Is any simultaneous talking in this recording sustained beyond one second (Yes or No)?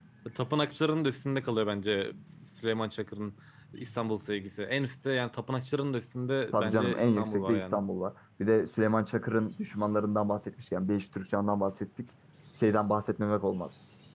Yes